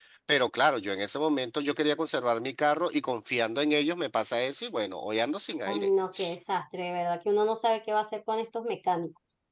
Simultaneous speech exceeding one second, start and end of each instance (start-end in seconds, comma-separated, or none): none